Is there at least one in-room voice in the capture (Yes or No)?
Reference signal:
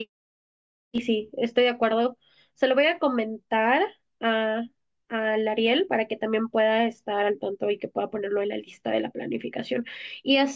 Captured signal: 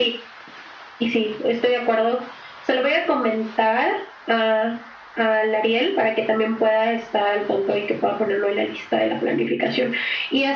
No